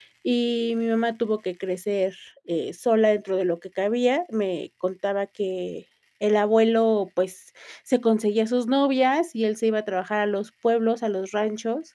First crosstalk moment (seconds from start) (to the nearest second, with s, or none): none